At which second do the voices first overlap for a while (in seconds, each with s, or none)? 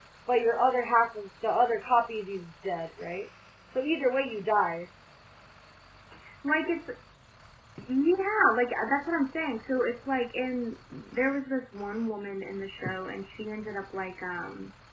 none